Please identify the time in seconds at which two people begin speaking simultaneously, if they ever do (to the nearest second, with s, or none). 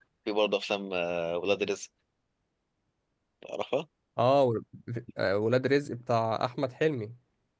none